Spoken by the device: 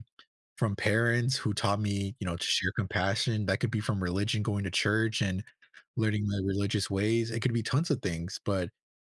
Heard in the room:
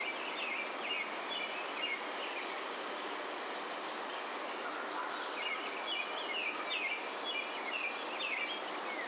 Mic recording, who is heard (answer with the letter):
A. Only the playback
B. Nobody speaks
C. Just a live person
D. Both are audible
B